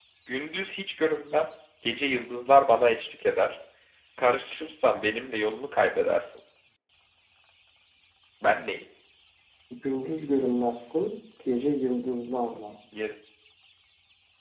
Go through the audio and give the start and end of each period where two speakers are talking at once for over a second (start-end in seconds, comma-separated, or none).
none